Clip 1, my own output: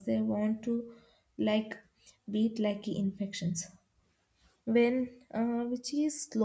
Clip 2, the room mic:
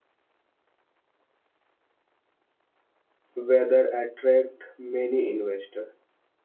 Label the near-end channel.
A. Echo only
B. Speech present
B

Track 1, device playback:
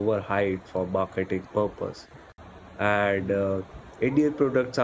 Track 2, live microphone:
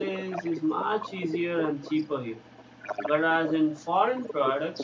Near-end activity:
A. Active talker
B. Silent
A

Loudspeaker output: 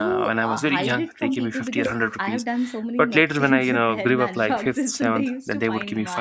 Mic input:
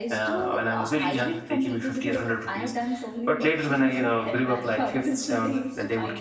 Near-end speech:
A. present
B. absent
B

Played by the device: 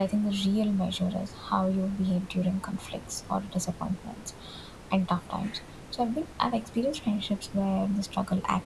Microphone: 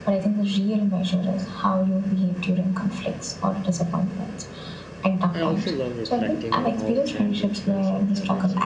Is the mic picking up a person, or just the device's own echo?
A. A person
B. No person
A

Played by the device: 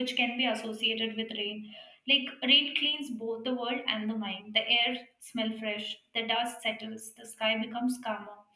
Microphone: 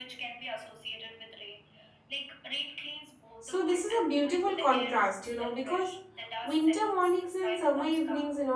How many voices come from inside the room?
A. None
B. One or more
B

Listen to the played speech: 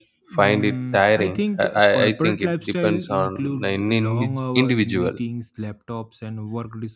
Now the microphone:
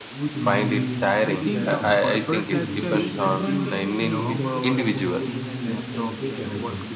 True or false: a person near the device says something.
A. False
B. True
B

